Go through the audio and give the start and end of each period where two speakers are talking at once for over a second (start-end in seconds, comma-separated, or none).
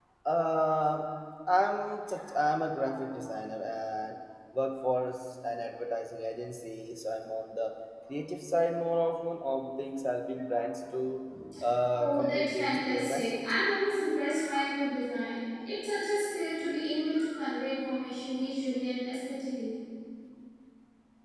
11.9-13.5